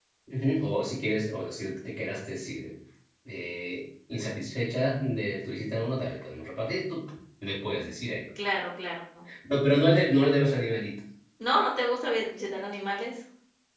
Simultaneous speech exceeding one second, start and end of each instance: none

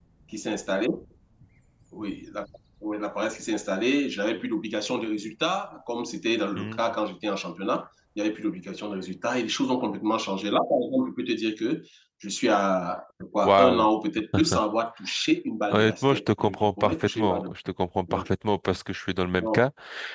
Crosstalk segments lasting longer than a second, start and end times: 15.7-17.5

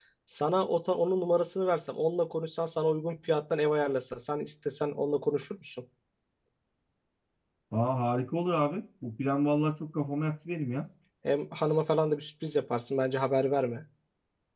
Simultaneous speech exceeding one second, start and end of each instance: none

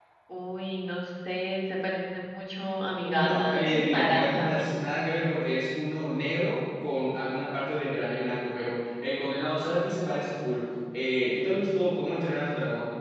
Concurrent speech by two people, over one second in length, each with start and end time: 3.1-4.8

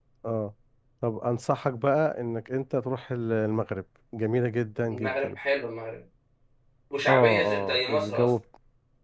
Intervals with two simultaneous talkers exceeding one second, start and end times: 7.1-8.3

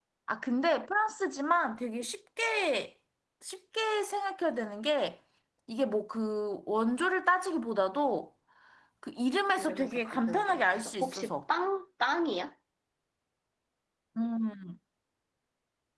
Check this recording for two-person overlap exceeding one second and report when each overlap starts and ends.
9.6-11.3

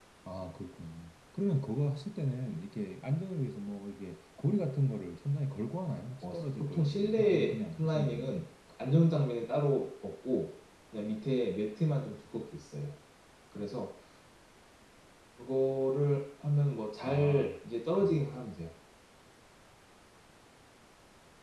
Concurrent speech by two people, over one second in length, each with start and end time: 6.2-8.4

